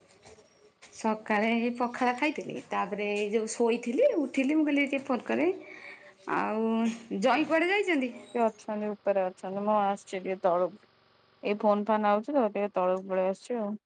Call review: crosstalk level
none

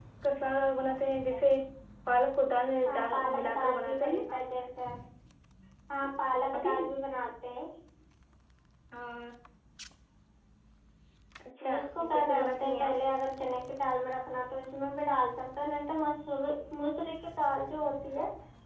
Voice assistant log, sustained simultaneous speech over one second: present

